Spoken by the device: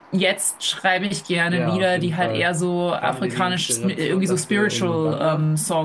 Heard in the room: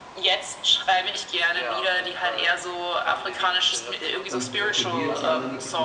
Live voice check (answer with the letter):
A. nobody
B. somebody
B